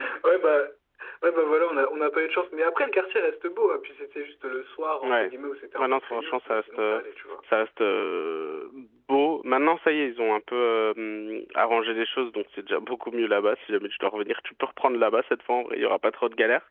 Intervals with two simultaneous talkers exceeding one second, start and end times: 5.8-7.0

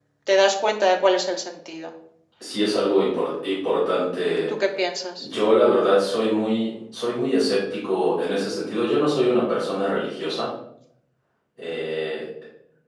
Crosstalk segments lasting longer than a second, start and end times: none

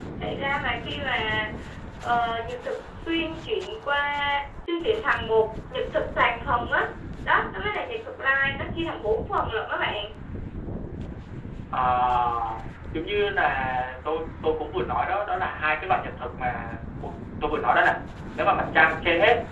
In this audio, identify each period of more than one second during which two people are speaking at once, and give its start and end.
none

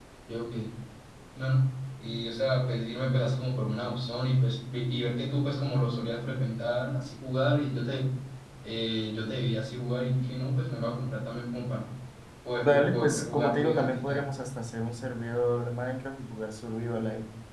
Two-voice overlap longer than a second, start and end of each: 12.6-14.3

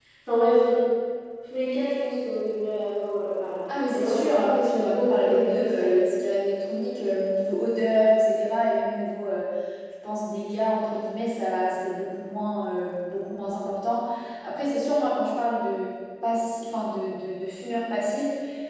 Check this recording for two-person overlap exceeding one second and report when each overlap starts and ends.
3.7-6.0

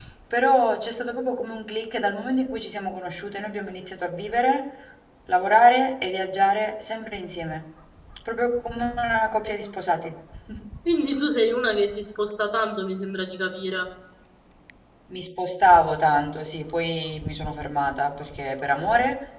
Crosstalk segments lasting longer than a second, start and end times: none

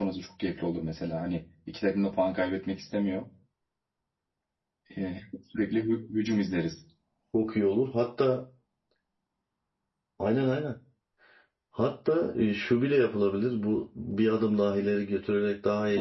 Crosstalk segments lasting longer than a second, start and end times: none

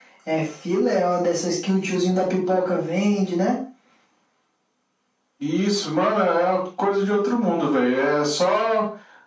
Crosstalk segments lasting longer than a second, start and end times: none

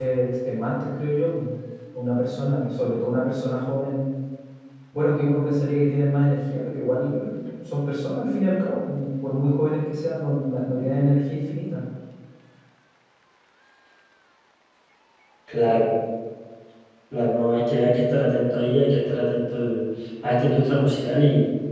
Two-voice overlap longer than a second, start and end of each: none

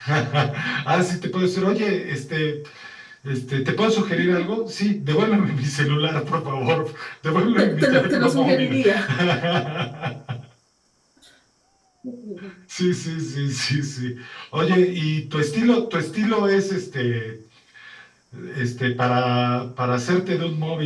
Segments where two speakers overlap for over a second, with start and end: 7.6-8.8

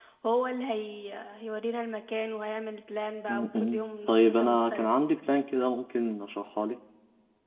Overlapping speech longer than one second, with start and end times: 3.3-4.9

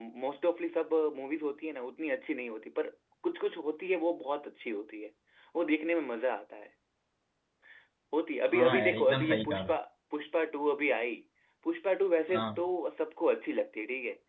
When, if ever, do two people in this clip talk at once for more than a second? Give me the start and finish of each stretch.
8.5-9.7

